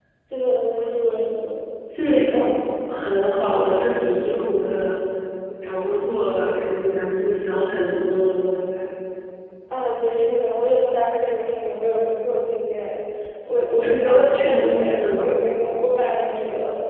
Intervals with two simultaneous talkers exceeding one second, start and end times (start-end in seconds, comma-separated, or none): 14.0-15.4